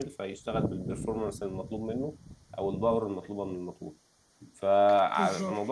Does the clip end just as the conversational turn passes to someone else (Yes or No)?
No